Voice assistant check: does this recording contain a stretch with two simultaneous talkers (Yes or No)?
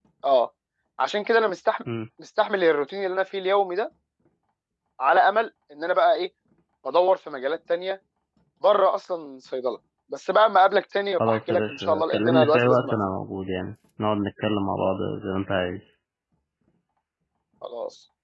Yes